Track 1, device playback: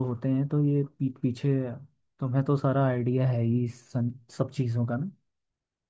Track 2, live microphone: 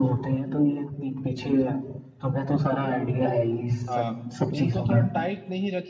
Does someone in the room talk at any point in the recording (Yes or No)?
Yes